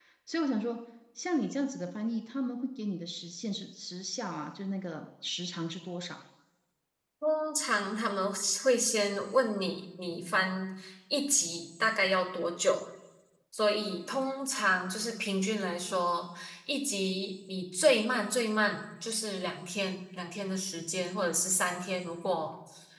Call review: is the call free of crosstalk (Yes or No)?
Yes